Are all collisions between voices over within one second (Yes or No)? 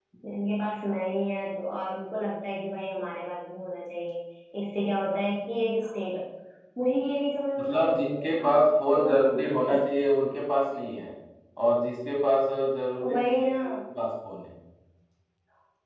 No